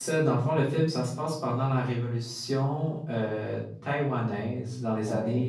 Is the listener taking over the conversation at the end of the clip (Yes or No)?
No